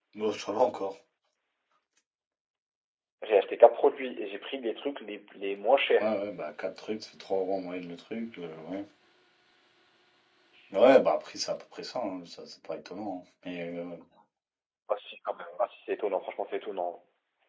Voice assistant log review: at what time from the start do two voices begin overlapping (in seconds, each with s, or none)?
none